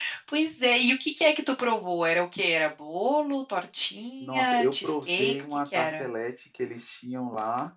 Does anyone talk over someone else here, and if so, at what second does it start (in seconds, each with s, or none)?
4.2 s